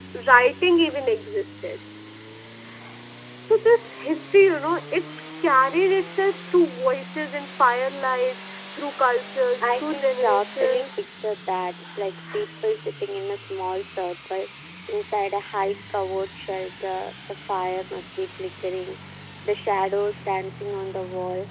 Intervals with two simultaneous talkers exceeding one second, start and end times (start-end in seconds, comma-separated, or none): 9.6-11.0